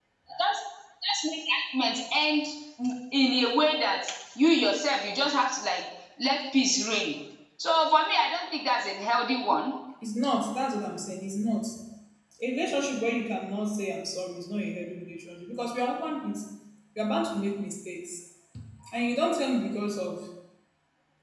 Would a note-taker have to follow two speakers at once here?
No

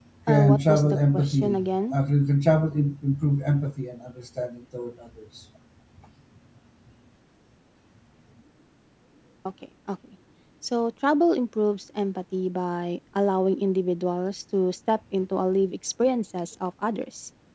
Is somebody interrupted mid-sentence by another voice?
Yes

